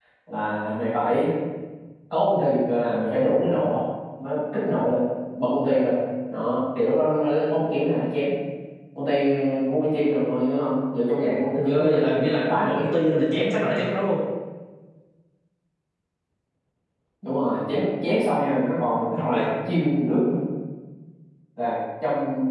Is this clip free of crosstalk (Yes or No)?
No